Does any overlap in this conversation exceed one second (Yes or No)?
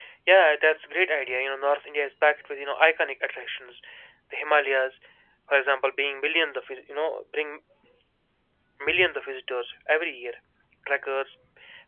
No